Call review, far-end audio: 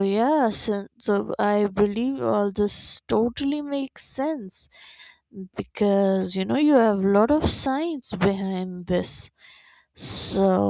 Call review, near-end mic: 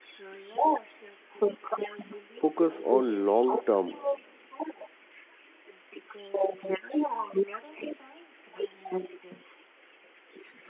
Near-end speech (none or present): present